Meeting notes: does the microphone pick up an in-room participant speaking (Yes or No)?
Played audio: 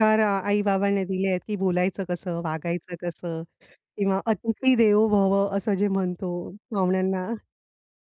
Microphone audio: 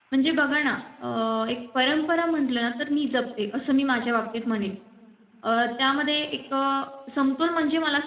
Yes